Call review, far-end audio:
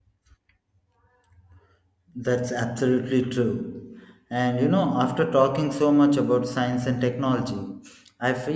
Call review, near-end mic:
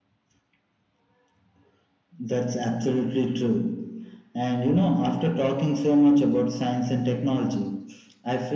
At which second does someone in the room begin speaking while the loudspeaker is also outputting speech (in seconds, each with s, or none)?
none